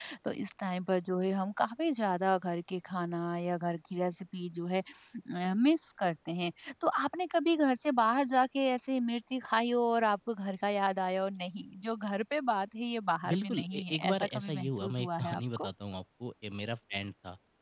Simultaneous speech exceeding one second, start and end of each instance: 13.3-15.7

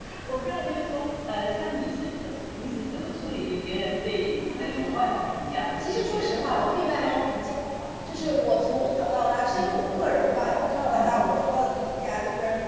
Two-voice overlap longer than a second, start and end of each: 5.8-7.2

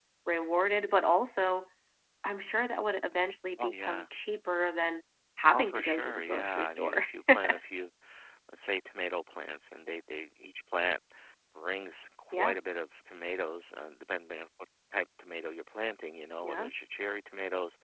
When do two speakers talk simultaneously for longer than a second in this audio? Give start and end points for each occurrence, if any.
5.5-7.0

